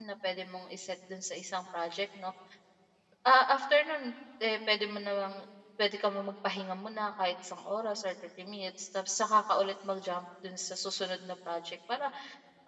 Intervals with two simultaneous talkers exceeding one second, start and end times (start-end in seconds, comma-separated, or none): none